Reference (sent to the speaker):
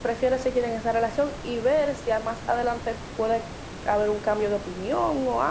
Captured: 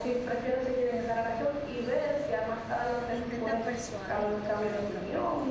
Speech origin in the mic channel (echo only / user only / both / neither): both